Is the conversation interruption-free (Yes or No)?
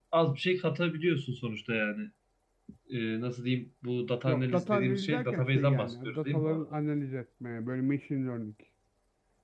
No